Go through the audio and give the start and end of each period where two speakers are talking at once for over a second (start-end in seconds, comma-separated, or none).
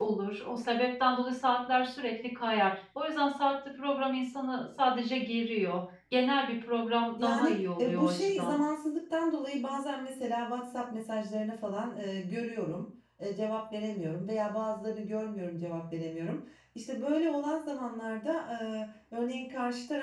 7.2-8.6